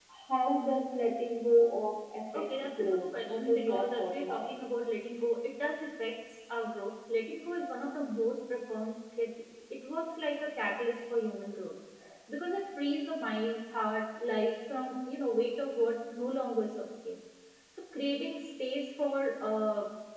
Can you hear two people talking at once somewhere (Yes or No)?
Yes